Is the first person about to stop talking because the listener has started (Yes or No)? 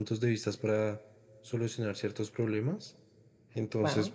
No